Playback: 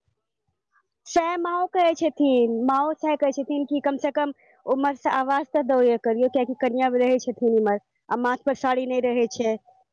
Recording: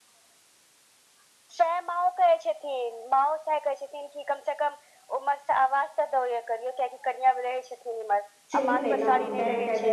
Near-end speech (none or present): present